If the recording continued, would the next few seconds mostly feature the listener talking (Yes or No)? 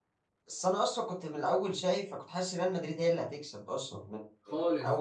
No